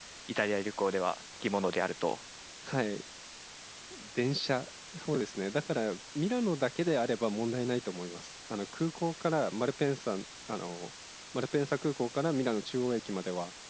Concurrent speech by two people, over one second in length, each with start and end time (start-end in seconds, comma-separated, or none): none